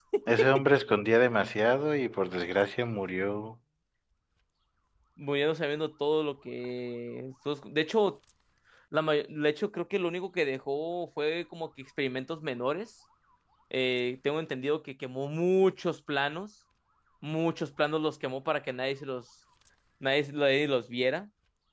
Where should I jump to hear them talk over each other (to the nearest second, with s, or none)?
none